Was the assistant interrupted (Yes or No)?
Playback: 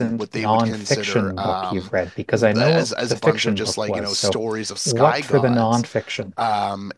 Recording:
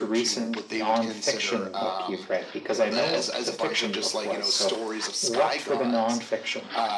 No